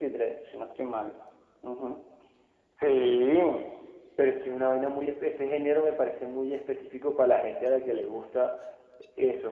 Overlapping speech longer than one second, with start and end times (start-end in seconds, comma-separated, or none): none